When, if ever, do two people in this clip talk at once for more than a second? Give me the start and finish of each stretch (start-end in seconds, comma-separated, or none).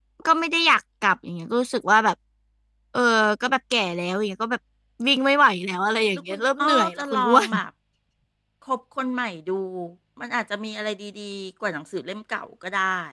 6.1-7.5